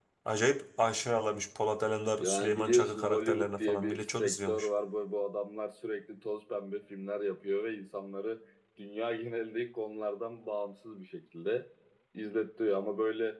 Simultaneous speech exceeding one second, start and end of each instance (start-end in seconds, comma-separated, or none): 2.2-4.7